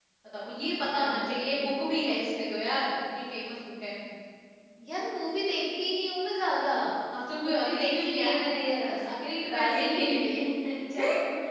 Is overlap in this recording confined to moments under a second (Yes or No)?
No